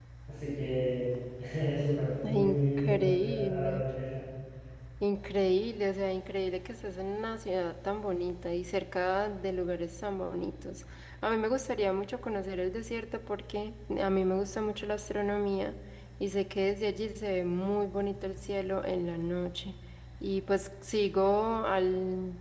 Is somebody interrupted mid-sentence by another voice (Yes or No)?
Yes